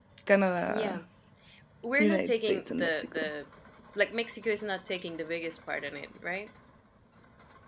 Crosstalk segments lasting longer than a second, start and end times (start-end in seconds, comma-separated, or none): 2.0-3.3